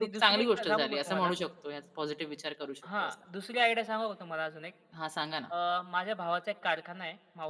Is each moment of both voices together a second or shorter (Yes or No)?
No